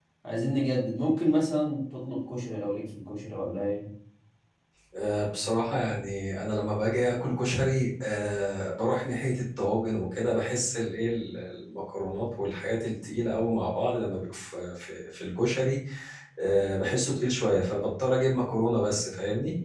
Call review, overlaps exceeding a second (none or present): none